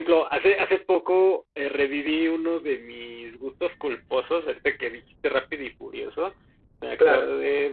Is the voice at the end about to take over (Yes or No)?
No